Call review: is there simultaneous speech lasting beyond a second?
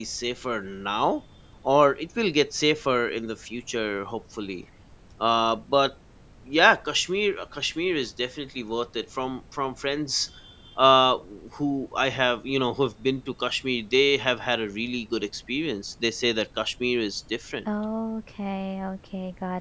No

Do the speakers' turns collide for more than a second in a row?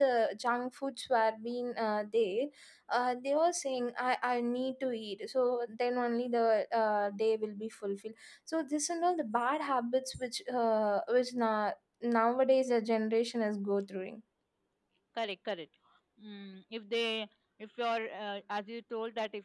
No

